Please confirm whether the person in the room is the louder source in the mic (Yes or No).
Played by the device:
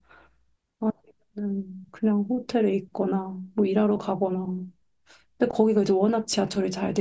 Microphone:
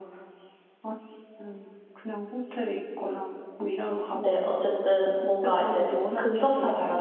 Yes